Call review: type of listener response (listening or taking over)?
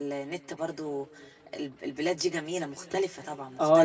taking over